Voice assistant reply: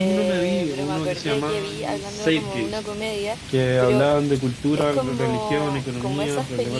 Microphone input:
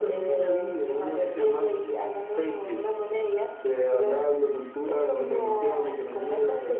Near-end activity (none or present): none